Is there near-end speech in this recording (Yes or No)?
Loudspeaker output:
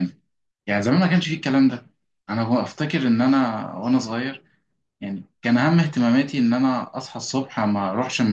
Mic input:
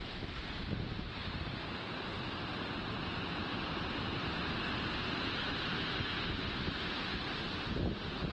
No